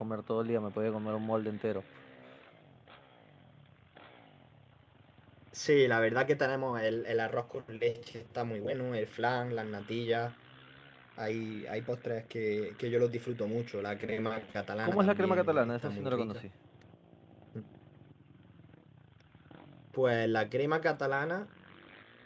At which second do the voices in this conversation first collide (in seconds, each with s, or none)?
14.8 s